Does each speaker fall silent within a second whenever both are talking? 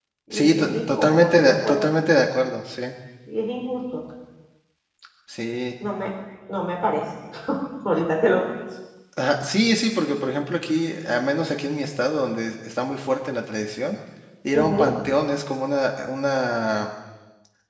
No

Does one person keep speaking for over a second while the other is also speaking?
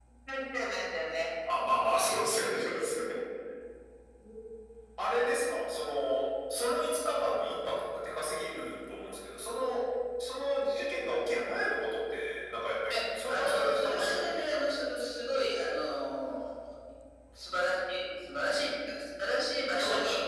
Yes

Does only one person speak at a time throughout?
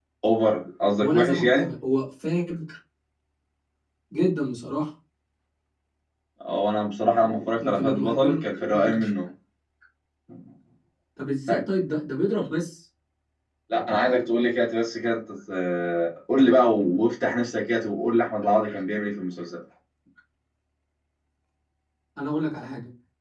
No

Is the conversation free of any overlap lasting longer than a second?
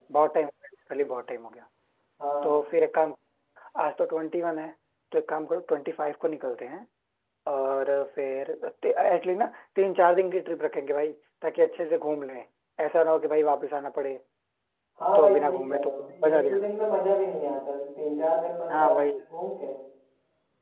No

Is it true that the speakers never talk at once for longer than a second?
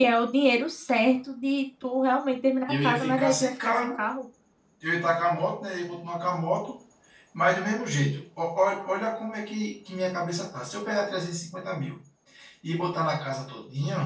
No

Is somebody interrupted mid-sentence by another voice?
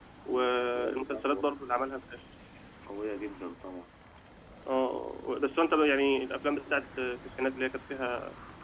Yes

